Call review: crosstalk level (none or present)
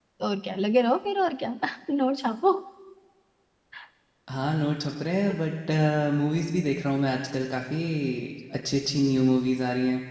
none